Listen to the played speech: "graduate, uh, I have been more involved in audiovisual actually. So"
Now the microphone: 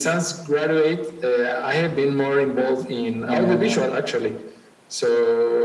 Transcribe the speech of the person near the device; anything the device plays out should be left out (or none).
um,